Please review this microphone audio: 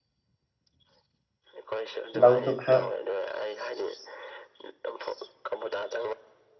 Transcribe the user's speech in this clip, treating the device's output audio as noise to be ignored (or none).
ꯂꯧꯁꯨ ꯈꯔ